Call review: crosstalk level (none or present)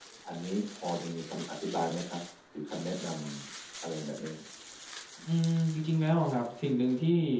none